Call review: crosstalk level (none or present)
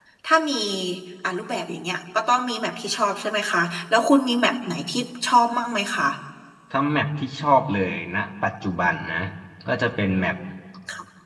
none